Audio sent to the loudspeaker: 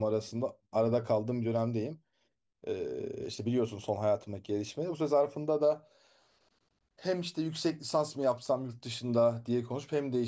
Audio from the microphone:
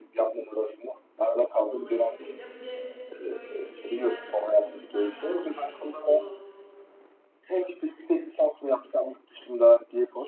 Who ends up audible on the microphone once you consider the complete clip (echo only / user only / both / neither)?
both